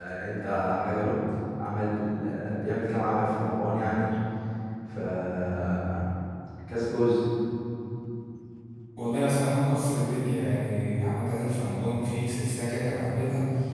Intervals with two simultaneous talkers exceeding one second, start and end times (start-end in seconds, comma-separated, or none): none